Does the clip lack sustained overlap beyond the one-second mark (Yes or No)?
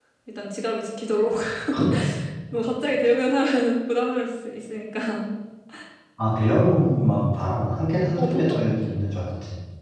Yes